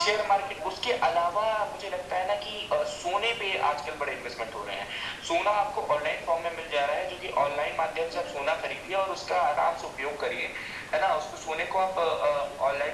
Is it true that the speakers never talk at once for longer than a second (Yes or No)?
No